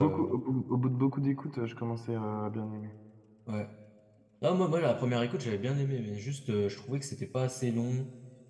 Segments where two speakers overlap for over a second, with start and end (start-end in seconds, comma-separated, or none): none